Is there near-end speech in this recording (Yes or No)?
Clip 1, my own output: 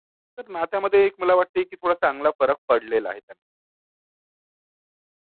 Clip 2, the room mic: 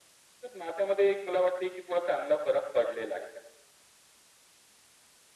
No